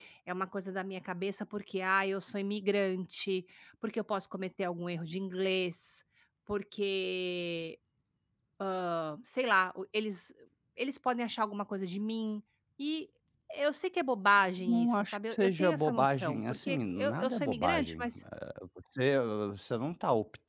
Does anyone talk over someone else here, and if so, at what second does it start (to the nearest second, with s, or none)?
15 s